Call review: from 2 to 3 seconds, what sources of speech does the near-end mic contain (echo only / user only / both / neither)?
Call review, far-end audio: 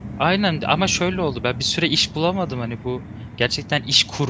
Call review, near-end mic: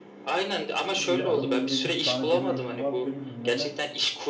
both